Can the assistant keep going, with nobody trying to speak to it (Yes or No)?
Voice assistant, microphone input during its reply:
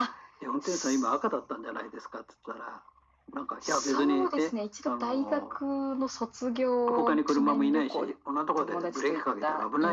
Yes